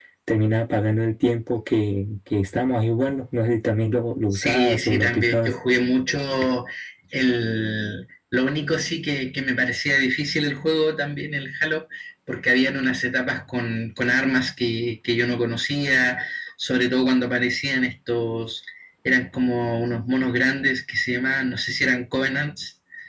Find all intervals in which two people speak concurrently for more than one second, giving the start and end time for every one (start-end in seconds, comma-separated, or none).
4.3-5.5